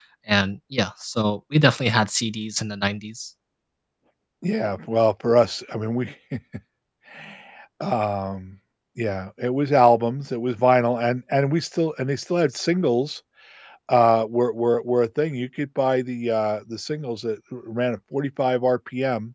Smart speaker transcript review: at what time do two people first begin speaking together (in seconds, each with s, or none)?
none